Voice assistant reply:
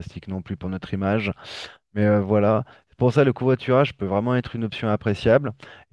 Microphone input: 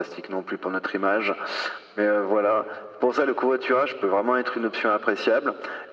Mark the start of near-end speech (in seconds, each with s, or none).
none